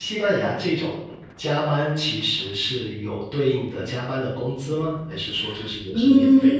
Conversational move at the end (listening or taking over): taking over